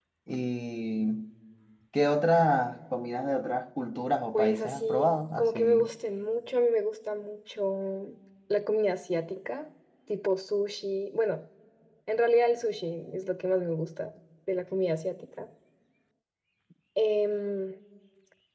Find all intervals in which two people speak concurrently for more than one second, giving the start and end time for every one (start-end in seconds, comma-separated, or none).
4.3-5.9